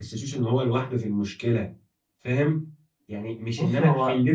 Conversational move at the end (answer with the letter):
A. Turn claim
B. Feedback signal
B